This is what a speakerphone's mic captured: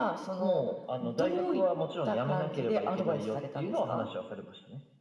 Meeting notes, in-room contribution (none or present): none